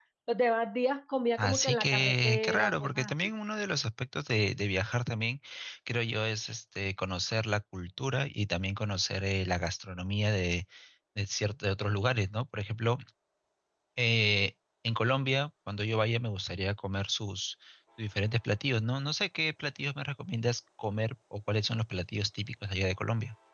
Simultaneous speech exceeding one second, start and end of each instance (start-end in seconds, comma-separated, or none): 1.4-3.1